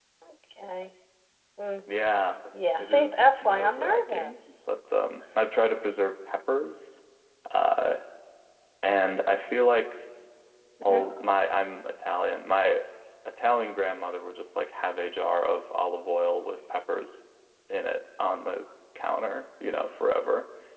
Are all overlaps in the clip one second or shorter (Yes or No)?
No